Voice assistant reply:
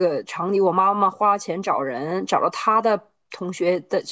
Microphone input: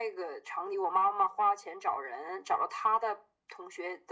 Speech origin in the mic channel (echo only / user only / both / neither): echo only